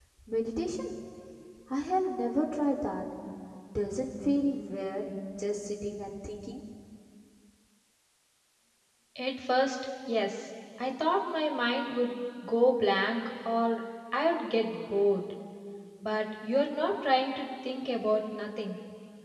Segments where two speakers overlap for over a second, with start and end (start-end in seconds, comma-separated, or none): none